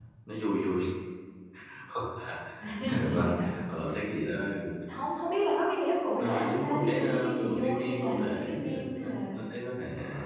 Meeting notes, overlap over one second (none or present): present